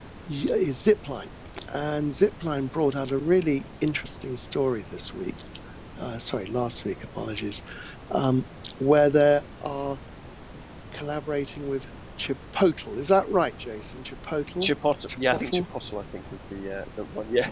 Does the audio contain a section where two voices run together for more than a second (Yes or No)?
No